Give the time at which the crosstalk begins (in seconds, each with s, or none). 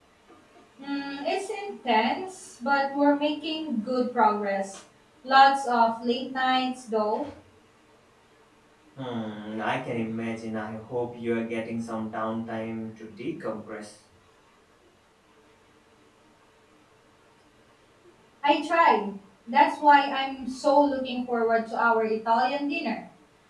none